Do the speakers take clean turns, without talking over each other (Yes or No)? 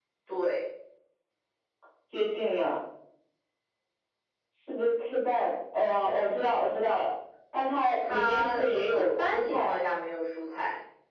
No